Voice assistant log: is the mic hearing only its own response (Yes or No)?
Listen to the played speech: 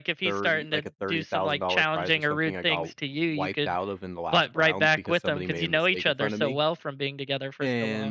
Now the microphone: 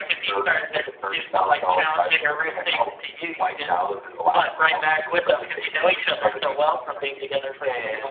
Yes